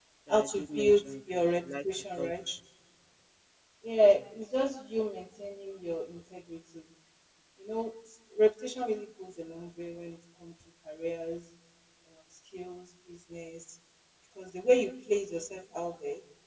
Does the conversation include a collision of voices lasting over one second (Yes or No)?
Yes